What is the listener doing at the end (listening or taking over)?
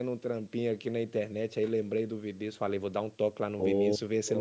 listening